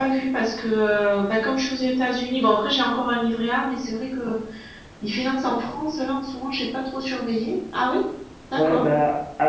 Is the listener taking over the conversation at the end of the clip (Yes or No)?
Yes